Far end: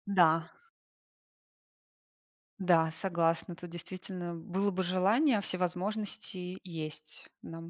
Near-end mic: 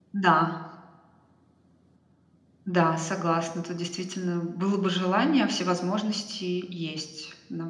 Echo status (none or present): present